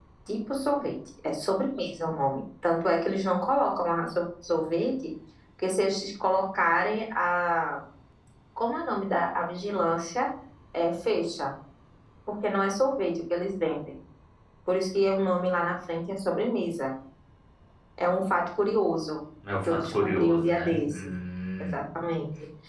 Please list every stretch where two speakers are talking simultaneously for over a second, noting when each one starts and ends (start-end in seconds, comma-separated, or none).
19.7-21.1